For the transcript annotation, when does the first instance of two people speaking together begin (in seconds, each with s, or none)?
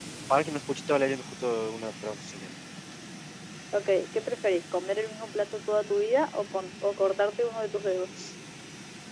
none